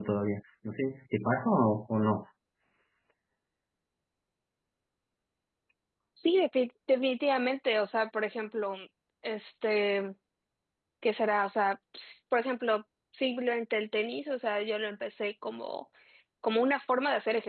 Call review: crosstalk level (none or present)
none